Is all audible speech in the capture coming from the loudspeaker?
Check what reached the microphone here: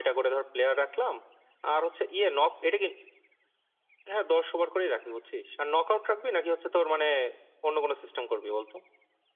Yes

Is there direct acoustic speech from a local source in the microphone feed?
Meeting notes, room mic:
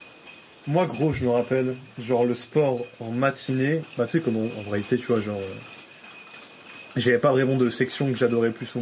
Yes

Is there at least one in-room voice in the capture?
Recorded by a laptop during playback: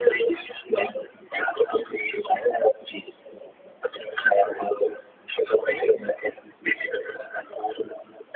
No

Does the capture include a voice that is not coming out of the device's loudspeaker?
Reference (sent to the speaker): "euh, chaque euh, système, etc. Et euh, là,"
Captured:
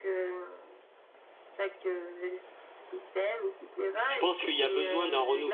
Yes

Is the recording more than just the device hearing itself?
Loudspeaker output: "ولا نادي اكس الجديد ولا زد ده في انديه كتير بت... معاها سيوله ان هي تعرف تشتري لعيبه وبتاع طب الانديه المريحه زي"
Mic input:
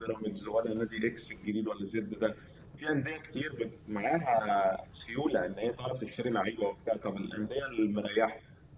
No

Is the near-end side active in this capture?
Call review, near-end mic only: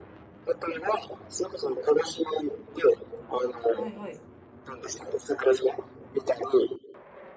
Yes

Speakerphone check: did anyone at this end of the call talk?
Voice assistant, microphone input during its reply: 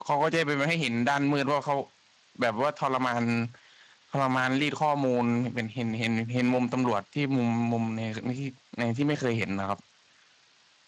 Yes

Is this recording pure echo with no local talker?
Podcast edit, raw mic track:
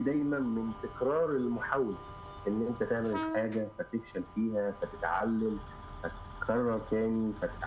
Yes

